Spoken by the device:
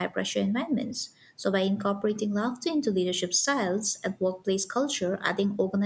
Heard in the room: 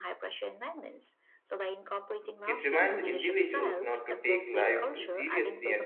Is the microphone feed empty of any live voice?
No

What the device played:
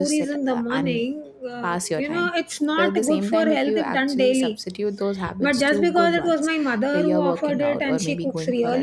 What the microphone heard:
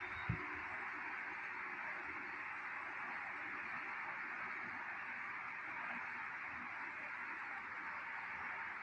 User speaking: No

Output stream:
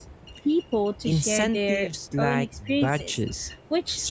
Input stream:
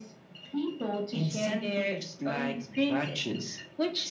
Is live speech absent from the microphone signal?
Yes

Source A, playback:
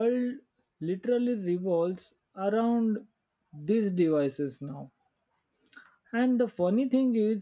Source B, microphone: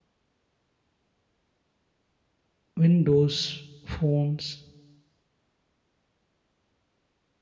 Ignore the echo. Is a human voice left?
Yes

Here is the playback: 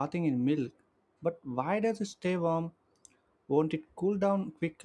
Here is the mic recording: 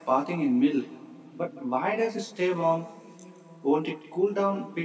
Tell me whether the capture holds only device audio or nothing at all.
Yes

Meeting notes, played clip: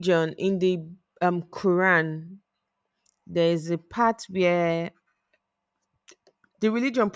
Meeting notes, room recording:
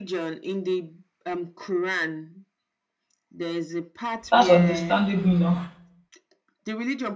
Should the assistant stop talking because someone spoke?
Yes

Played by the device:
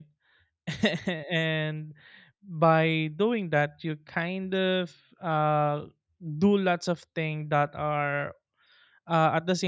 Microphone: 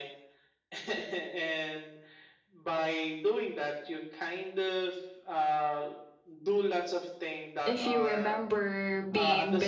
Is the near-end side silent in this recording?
No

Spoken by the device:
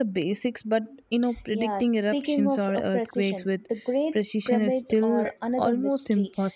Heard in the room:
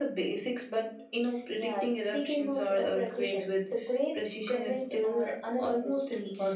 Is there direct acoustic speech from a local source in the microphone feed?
No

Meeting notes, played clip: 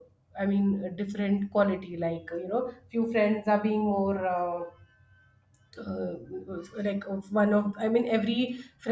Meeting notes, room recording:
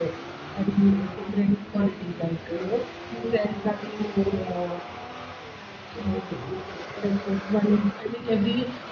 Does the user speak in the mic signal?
No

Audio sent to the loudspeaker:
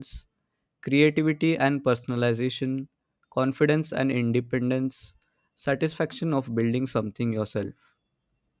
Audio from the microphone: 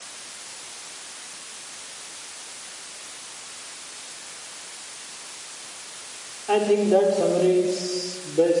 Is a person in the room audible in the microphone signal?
Yes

